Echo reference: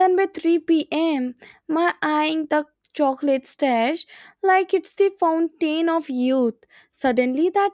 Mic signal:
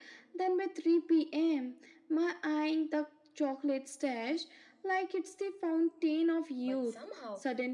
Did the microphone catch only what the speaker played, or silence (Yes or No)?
No